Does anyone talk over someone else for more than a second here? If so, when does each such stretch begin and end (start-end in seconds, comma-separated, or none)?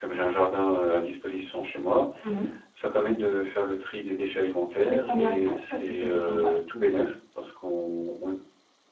4.8-6.6